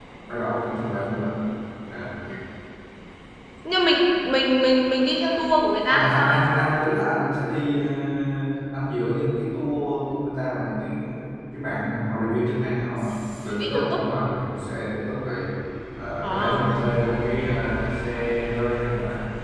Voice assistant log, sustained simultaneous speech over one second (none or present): none